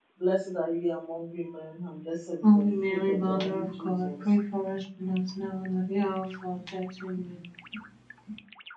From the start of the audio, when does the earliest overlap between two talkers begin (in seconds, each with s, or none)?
2.4 s